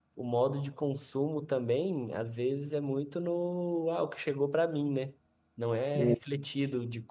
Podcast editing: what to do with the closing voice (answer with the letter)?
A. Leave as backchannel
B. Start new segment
A